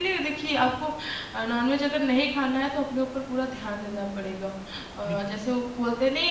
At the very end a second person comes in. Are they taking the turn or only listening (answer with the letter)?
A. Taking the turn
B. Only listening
B